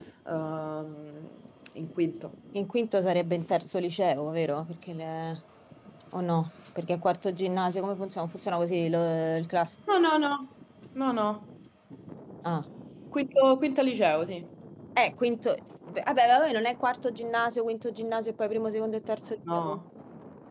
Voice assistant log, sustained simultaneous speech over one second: none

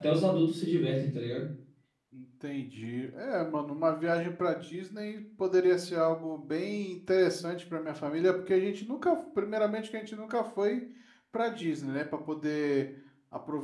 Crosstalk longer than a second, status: none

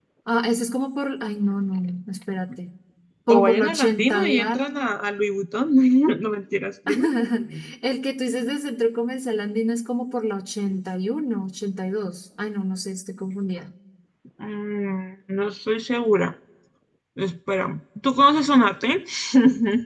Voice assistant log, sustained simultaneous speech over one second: present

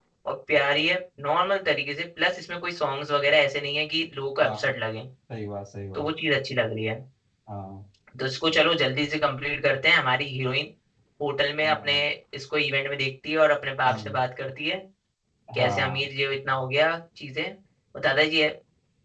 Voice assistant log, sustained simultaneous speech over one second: none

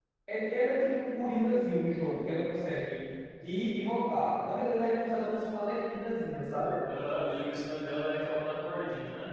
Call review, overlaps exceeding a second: none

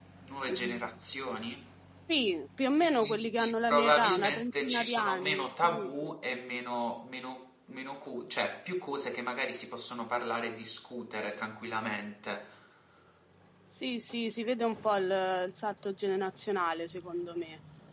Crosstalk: present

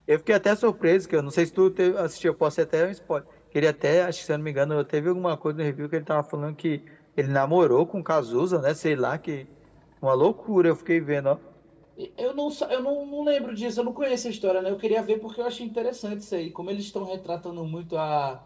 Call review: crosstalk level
none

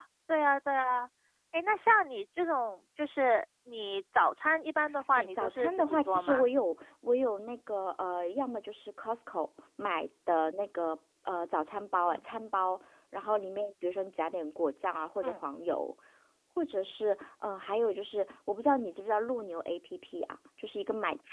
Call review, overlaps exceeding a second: present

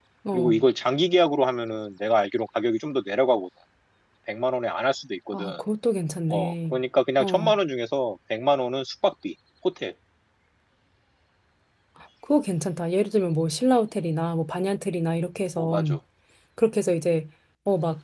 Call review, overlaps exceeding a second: none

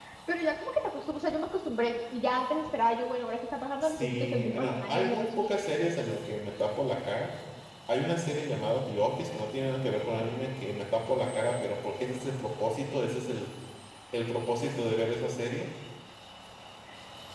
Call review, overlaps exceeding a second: present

